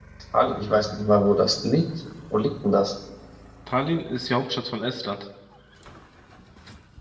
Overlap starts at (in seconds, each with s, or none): none